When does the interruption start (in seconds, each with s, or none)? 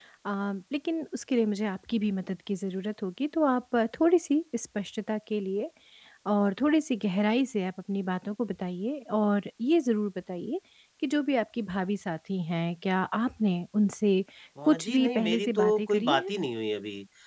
14.7 s